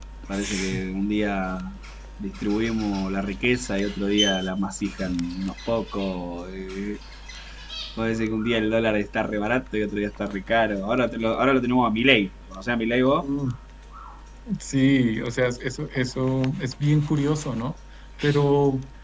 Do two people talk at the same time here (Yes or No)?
No